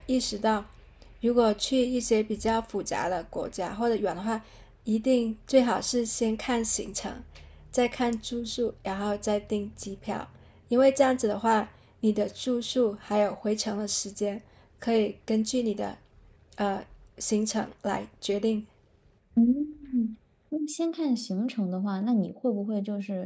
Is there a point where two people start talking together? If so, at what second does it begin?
none

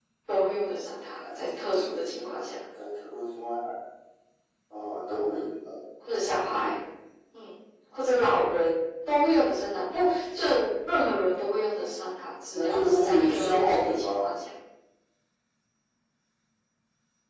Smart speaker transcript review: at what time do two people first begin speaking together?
1 s

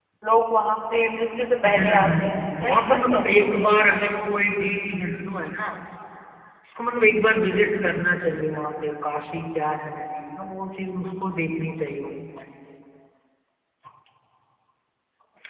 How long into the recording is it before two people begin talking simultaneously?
2 s

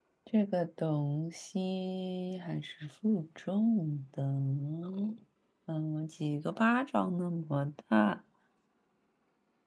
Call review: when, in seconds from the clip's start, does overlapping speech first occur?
none

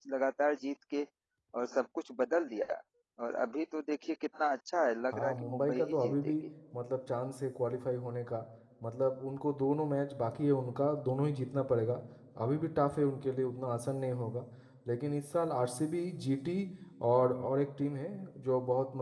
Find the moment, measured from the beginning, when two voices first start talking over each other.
5 s

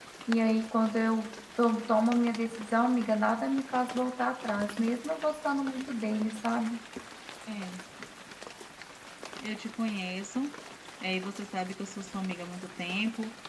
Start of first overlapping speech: none

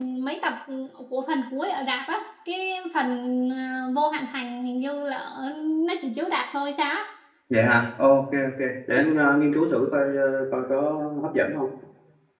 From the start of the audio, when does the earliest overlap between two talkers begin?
none

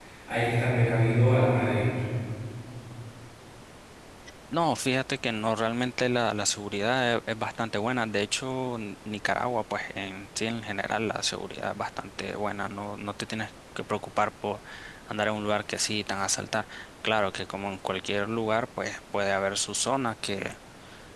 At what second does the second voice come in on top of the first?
none

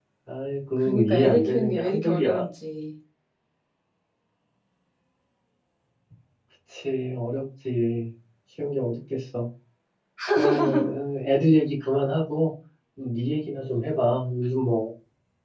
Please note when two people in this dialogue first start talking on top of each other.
1 s

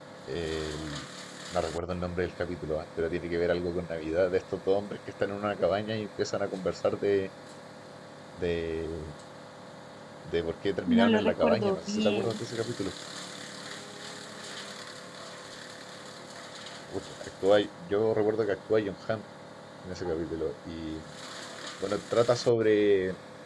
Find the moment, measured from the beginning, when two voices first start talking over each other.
11 s

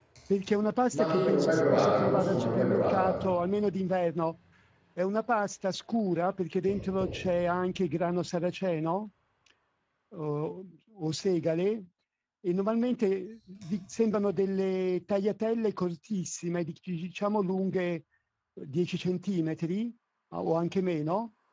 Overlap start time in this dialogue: 1 s

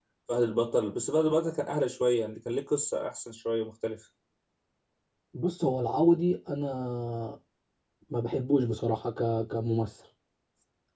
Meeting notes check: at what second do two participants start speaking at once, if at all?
none

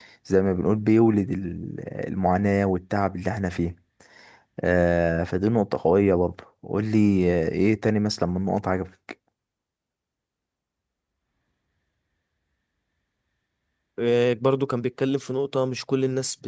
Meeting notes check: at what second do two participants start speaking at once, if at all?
none

